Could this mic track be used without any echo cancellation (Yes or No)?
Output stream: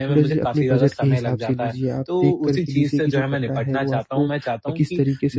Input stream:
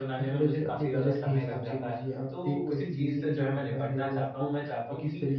No